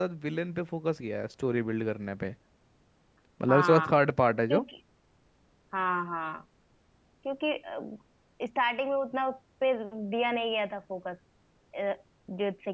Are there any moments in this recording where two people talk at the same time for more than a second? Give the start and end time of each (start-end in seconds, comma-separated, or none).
none